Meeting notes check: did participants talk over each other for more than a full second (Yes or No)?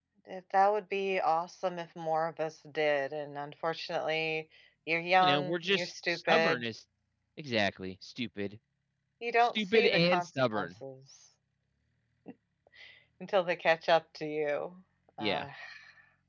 Yes